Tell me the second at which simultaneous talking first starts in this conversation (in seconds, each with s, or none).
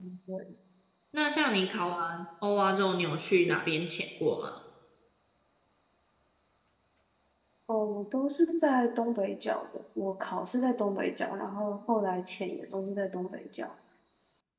none